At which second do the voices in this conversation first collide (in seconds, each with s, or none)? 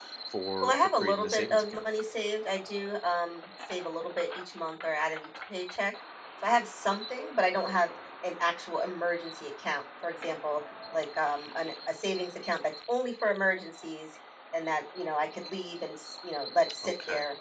0.6 s